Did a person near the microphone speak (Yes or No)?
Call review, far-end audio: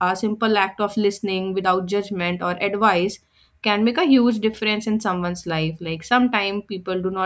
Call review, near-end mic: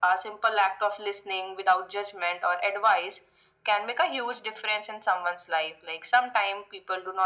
No